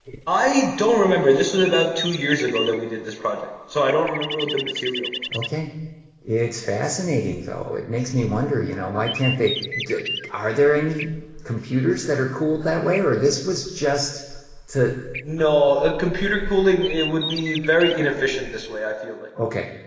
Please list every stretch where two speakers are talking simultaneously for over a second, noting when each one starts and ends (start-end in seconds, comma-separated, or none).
none